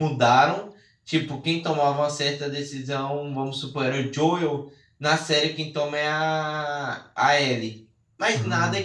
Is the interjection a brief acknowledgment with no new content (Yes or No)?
Yes